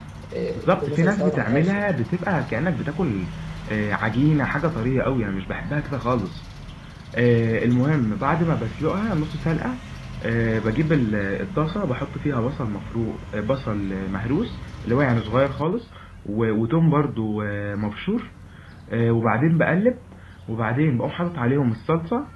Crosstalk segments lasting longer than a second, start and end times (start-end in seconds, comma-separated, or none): 0.6-1.8